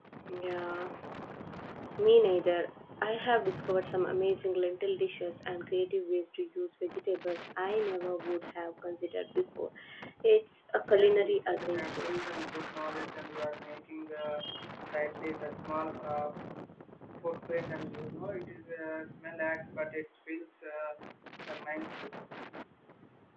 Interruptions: present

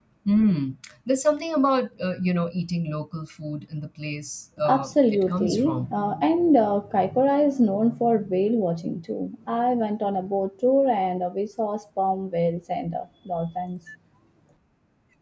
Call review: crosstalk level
present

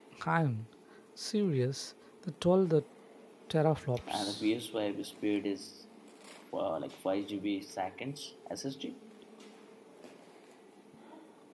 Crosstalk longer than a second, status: none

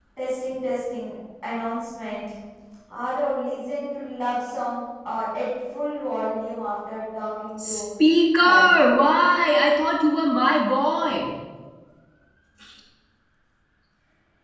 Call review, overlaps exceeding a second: none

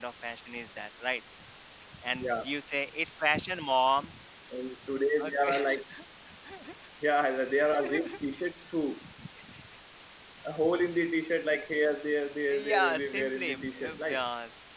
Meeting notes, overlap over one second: present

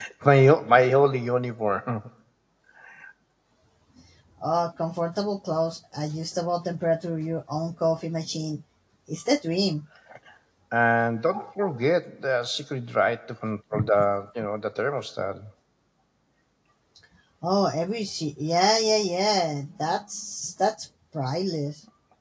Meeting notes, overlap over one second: none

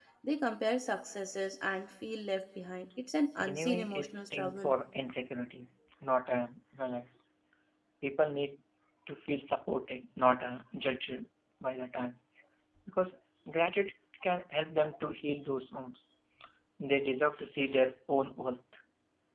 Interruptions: present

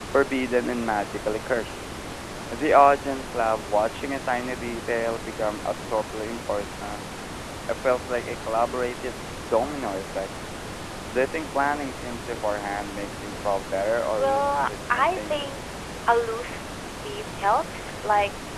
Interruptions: present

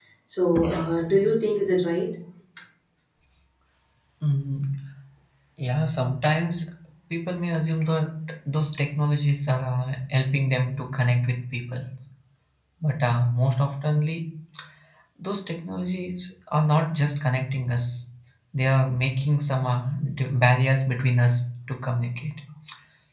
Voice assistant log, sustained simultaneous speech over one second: none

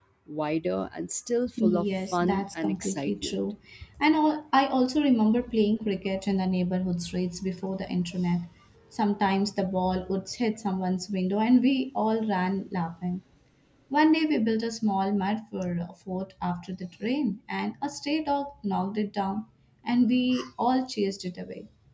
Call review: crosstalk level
present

